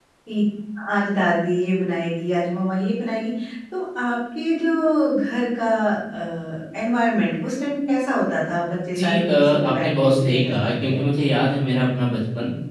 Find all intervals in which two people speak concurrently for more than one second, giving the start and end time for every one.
8.9-11.0

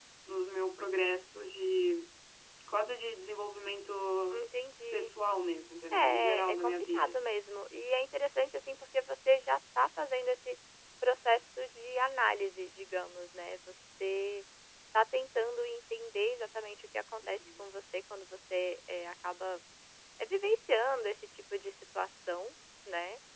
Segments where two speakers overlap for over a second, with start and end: 5.9-7.1

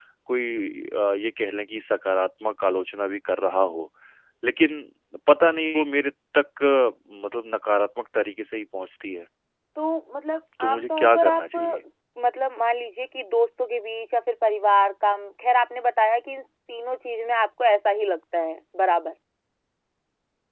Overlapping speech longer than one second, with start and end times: 10.6-11.8

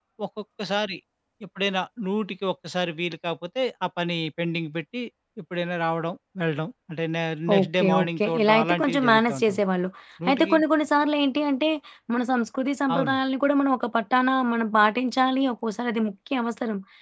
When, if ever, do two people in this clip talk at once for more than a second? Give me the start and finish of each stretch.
7.6-9.6

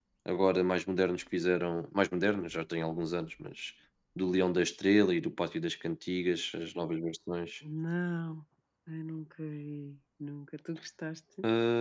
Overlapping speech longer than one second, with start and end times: none

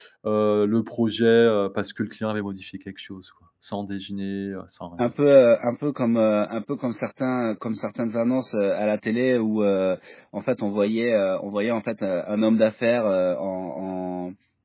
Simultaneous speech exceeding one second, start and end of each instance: none

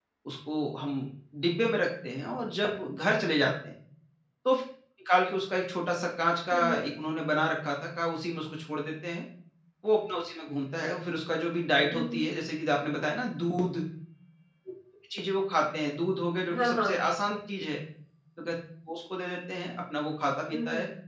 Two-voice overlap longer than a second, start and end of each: none

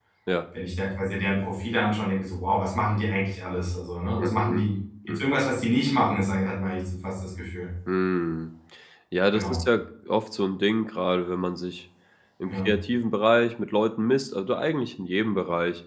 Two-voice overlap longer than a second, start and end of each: none

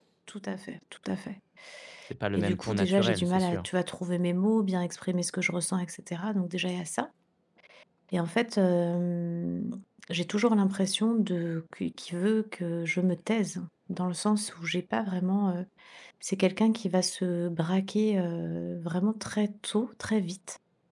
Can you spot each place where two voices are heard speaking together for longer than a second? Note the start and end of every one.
2.4-3.7

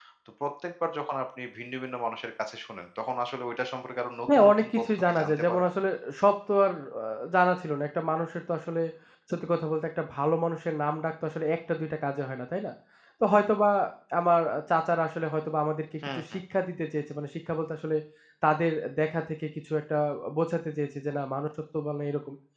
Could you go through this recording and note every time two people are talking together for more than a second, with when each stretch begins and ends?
4.3-5.7

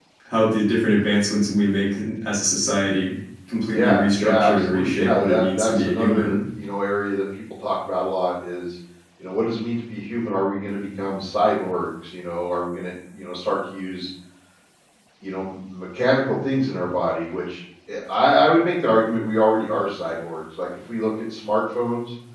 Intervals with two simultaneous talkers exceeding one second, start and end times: 3.7-6.4

